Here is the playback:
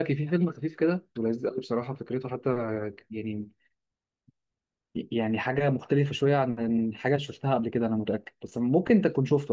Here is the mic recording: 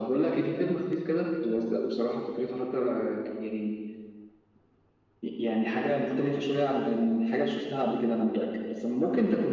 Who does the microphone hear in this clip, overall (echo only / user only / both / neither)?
echo only